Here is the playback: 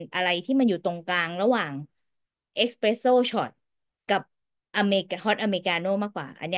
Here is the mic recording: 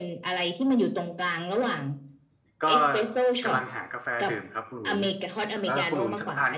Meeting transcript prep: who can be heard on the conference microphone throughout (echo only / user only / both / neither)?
both